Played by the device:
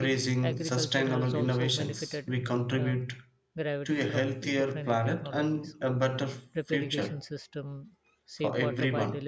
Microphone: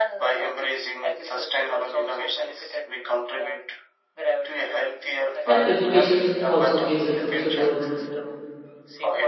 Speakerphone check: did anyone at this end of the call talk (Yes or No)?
Yes